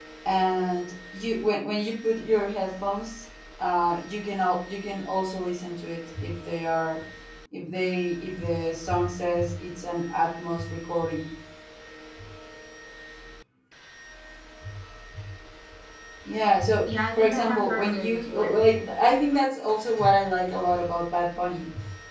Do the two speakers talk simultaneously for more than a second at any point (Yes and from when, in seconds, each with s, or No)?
Yes, from 16.9 s